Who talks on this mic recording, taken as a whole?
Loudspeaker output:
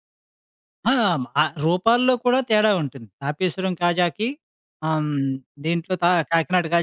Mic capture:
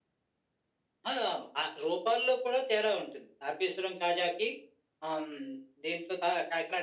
echo only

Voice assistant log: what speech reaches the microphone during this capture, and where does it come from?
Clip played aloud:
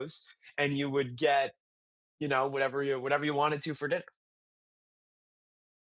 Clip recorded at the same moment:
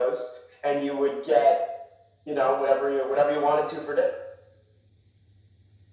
echo only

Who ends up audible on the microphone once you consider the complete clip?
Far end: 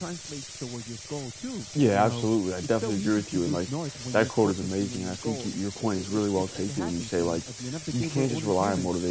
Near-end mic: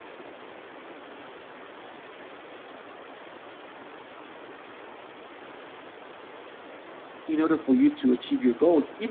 user only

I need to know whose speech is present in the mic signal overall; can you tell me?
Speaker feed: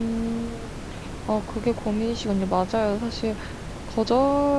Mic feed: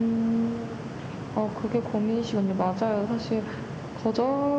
echo only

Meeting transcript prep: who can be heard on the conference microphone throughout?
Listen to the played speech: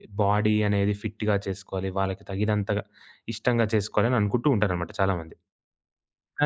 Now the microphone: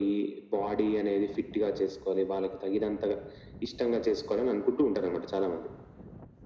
echo only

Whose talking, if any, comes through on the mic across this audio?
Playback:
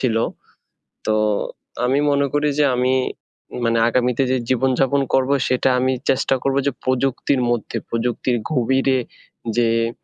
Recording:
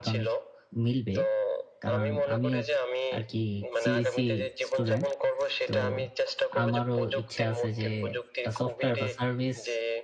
both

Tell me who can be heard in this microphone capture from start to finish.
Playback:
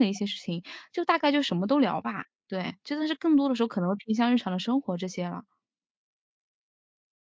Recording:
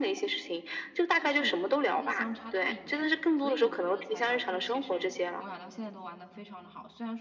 both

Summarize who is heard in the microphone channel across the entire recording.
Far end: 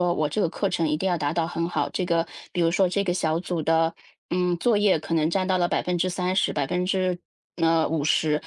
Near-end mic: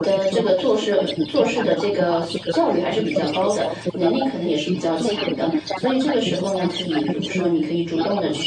both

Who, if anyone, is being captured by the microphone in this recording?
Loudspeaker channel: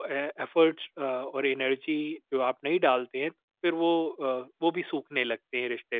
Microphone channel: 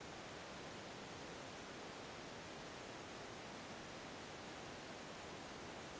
neither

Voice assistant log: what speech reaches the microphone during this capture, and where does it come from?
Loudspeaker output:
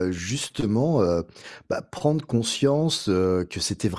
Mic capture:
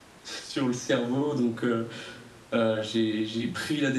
user only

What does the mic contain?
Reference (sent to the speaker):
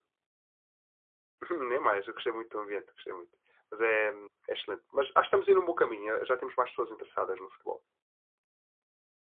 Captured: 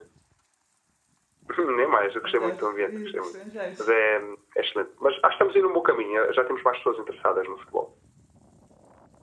both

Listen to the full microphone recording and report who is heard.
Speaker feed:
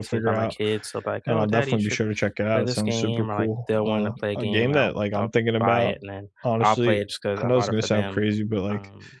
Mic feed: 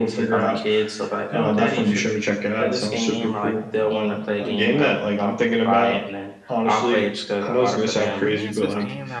both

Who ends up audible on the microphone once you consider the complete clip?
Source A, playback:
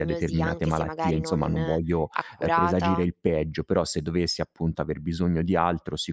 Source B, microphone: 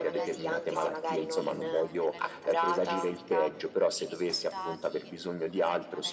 both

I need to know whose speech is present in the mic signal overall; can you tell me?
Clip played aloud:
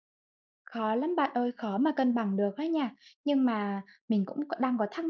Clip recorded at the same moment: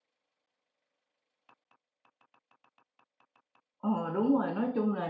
user only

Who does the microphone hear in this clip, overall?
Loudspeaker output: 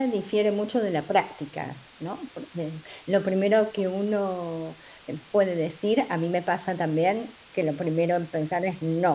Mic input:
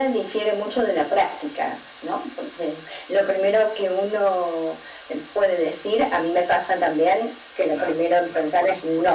both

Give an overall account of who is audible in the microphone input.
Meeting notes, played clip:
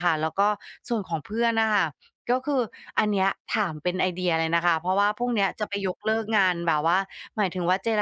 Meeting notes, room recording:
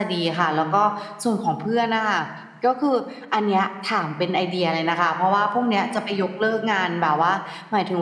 echo only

